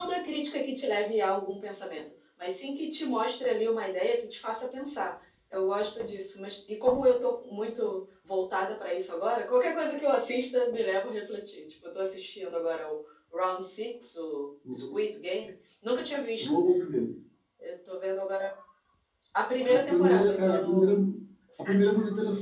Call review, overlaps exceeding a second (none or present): present